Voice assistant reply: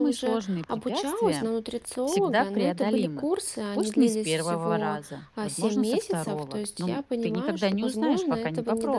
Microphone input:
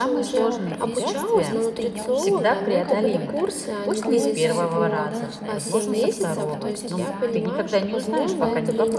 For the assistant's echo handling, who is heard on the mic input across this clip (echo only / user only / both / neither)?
both